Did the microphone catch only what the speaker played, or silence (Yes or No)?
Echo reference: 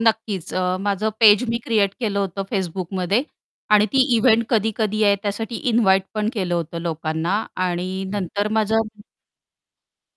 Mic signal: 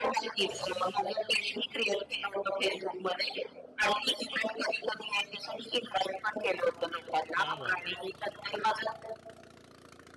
No